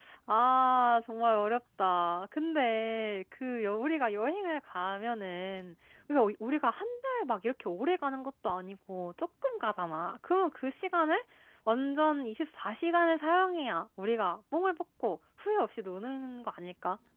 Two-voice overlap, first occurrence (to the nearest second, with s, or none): none